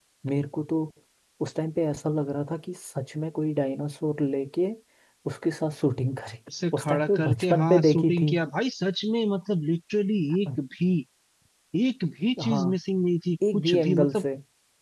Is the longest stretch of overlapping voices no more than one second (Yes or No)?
No